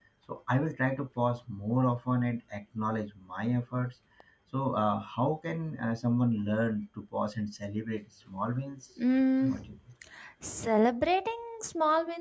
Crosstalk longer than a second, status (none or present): none